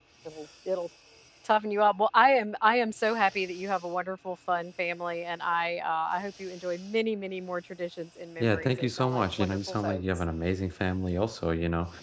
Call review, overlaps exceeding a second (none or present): present